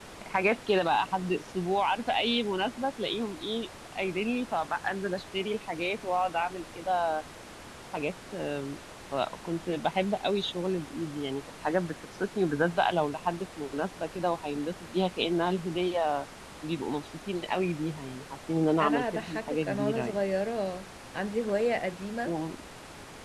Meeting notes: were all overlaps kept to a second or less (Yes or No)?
No